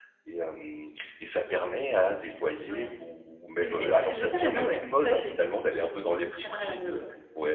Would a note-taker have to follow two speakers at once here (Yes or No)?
Yes